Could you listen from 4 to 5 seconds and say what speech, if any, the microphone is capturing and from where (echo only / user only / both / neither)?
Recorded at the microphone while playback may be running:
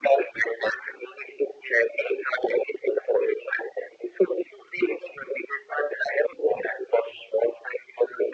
echo only